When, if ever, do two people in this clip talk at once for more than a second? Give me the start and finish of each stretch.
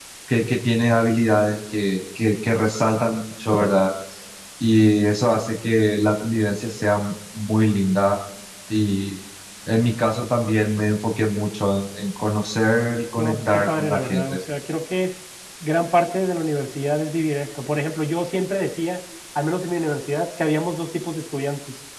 13.2-14.4

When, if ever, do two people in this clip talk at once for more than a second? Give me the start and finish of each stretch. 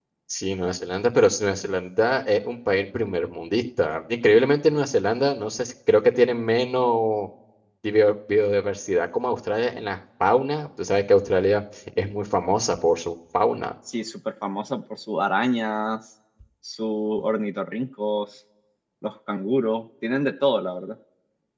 none

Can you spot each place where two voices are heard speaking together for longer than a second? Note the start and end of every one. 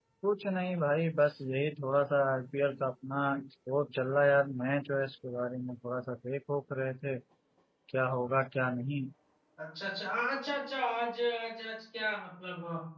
none

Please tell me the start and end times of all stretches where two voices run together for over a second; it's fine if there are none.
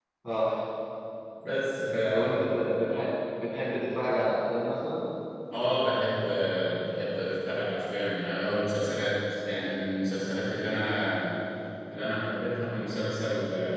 none

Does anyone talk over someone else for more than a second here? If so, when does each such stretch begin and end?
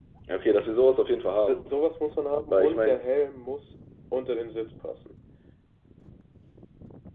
none

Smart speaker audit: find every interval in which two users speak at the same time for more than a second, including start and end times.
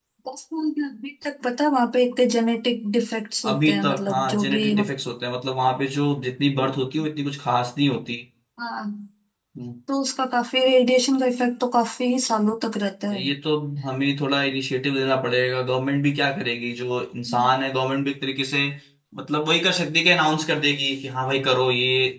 3.5-4.9

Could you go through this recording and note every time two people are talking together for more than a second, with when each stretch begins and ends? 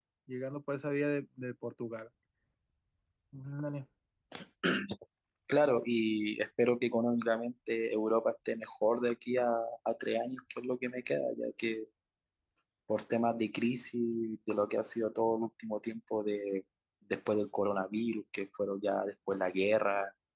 none

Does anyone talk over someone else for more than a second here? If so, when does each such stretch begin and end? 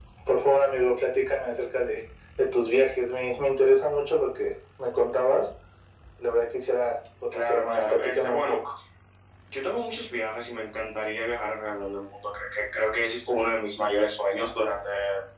7.3-8.6

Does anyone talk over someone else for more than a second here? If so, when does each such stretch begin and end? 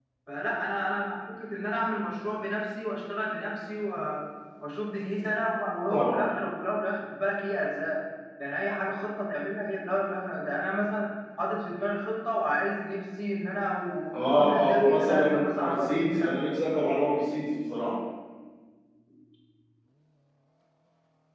14.1-16.4

